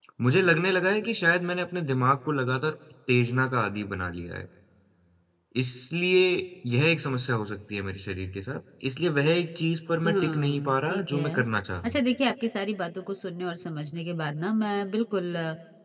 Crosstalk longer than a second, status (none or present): present